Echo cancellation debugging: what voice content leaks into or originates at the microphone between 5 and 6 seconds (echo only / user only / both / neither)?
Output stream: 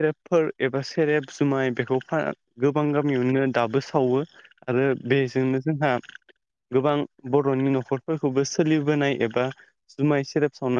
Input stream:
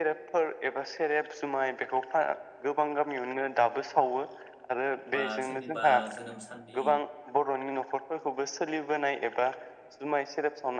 both